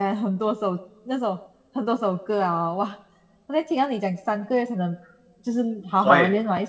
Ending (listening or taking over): listening